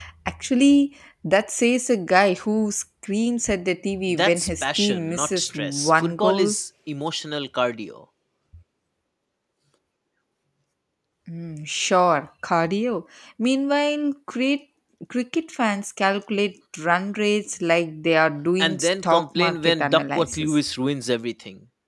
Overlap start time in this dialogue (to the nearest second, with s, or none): 4 s